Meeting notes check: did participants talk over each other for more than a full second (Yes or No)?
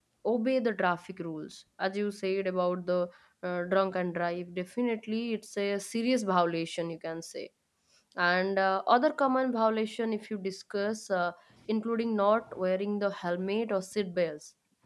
No